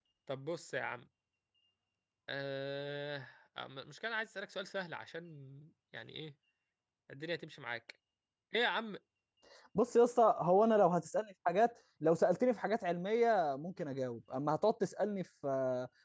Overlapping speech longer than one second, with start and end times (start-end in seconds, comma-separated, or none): none